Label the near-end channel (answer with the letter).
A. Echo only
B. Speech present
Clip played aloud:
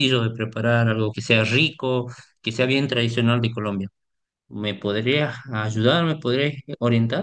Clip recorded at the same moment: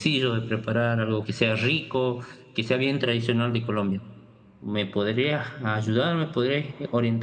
A